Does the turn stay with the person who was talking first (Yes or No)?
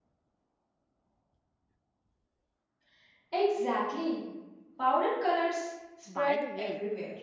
No